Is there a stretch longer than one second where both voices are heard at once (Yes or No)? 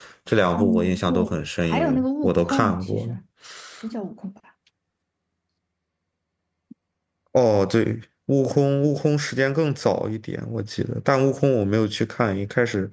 Yes